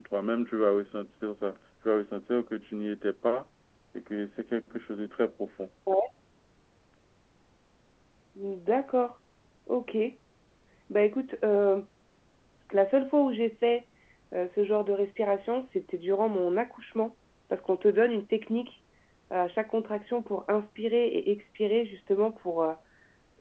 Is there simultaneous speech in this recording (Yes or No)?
No